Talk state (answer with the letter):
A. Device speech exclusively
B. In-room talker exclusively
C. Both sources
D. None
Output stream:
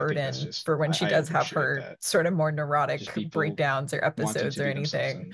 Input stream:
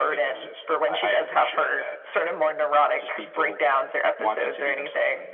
A